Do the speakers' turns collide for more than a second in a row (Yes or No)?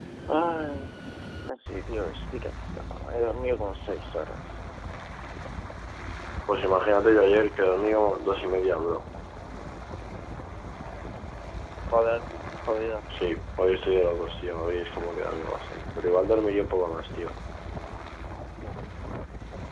No